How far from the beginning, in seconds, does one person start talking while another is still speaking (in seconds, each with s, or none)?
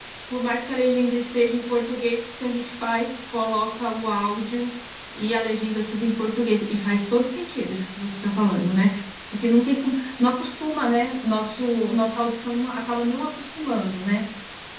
none